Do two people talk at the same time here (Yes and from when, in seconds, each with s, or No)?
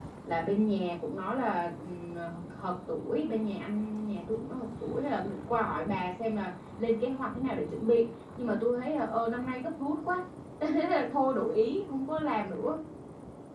No